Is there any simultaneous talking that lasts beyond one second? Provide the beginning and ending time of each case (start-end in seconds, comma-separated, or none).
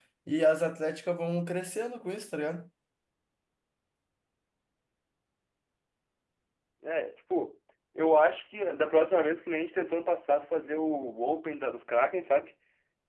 none